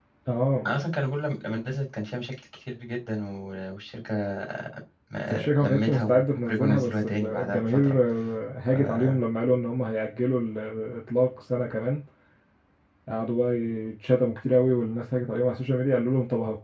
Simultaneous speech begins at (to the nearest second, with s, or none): 5 s